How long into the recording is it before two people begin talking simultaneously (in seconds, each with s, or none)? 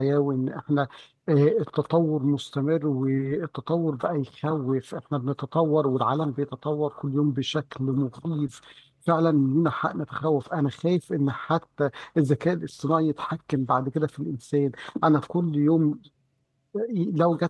none